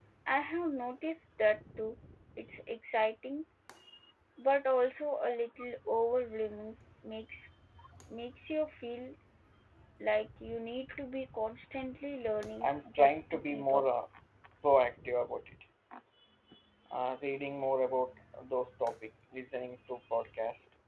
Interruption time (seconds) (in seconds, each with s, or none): 12.6 s